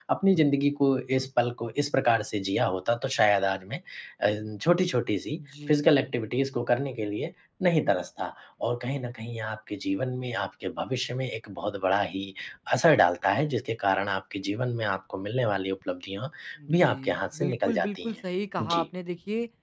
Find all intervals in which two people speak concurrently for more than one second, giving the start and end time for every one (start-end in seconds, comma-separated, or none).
16.7-18.1